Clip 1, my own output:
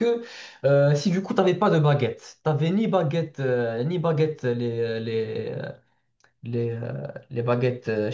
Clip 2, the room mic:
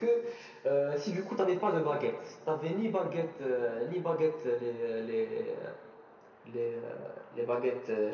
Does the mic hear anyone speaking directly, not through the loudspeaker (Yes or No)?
No